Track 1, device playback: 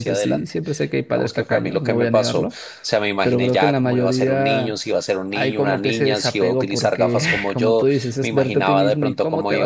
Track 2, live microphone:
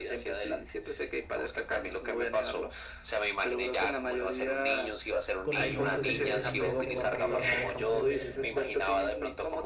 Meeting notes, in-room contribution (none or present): present